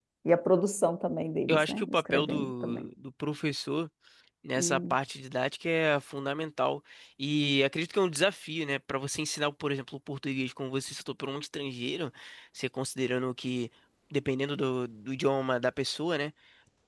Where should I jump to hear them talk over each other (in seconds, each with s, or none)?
1.5 s